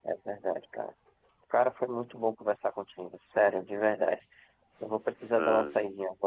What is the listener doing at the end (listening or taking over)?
listening